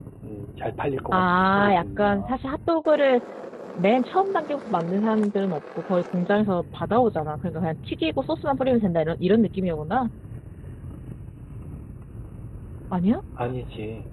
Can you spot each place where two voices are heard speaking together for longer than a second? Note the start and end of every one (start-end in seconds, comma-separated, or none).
1.1-2.3